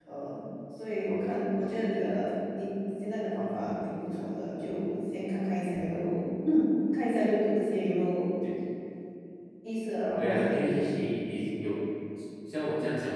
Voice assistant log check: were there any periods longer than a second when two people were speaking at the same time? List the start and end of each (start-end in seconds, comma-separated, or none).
10.2-11.4